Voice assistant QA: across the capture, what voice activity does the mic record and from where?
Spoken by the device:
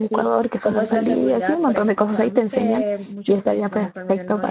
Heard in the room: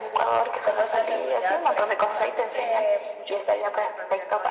echo only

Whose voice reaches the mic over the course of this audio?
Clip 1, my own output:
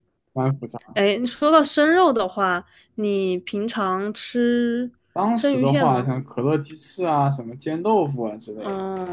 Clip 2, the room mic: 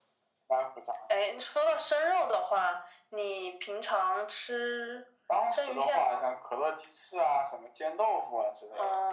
echo only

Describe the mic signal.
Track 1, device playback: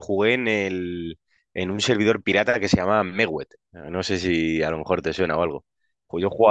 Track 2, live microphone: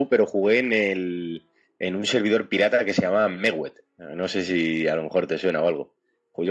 echo only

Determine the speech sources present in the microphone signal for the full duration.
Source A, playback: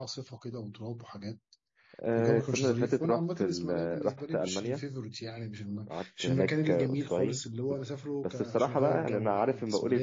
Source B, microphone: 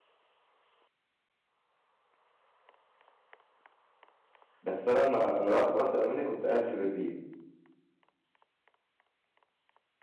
user only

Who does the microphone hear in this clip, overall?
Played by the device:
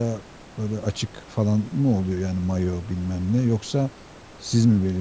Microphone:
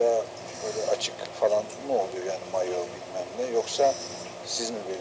echo only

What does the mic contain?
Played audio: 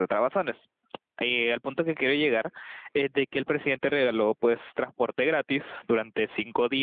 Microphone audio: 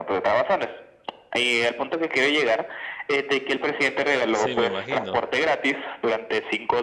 both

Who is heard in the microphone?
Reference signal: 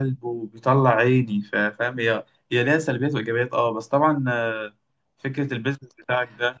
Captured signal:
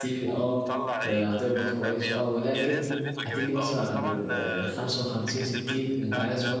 both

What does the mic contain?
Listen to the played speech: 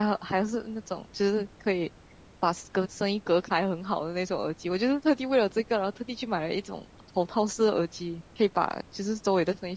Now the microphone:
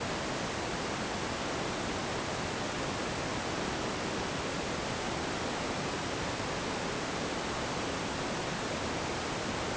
neither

